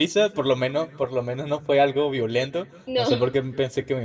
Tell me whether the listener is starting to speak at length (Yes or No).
No